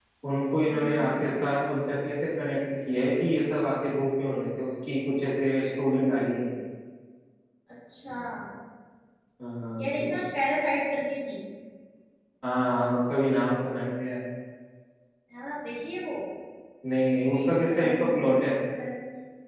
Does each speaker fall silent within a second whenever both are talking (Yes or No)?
No